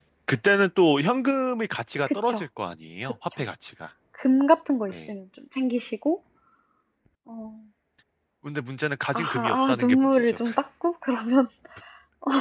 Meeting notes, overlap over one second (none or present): present